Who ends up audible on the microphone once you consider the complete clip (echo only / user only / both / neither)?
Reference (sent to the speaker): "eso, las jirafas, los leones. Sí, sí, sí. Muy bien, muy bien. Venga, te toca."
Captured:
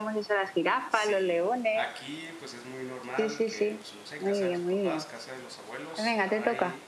both